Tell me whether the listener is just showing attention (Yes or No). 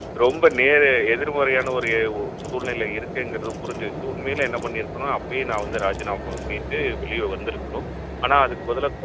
Yes